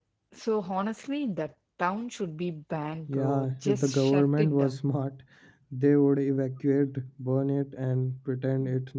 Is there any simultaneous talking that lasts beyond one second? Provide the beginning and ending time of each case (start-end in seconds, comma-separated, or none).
3.1-4.8